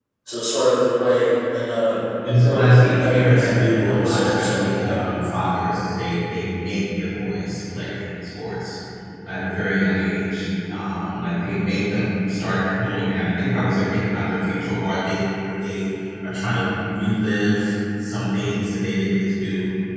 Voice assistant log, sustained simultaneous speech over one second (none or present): present